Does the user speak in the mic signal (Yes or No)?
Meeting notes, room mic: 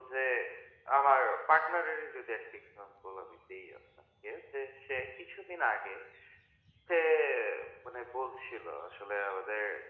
No